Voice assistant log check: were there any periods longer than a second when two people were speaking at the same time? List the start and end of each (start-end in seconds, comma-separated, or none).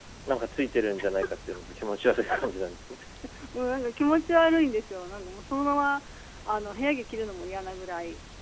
none